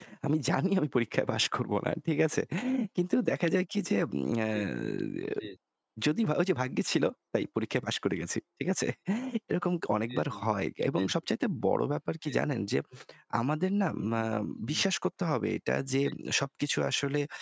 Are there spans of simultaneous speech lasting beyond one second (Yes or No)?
No